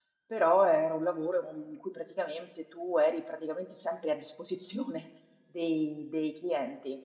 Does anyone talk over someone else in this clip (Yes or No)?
No